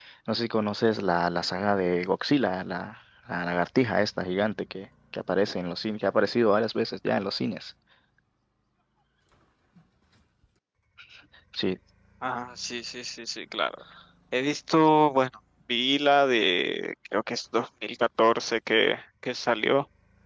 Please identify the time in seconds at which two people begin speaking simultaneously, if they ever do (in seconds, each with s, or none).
none